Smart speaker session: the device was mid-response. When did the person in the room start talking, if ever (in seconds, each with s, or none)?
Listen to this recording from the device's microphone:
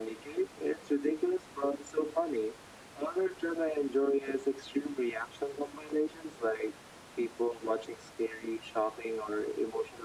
none